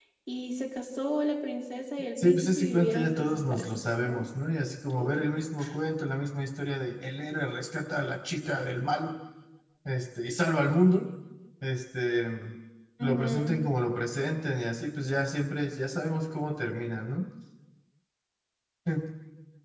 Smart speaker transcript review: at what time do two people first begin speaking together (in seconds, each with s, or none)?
2.2 s